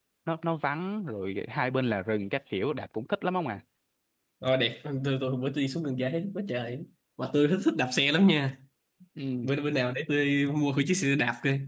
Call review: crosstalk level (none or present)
none